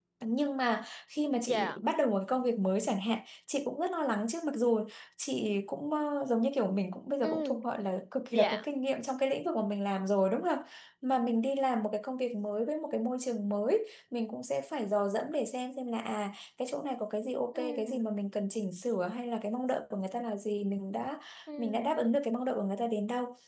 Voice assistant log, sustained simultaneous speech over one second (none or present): none